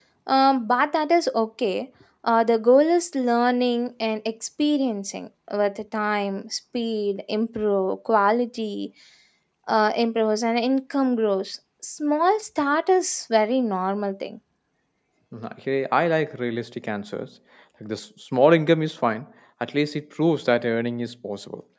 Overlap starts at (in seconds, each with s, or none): none